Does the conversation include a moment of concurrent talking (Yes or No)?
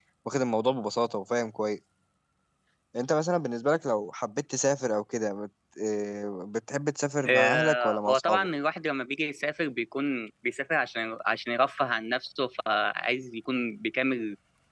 Yes